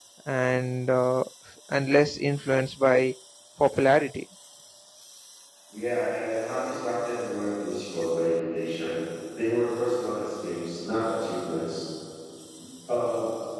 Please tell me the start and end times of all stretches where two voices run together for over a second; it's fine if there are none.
none

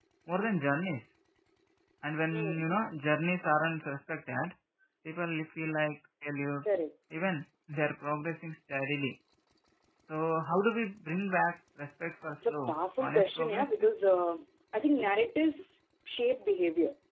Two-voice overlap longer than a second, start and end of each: 12.4-13.7

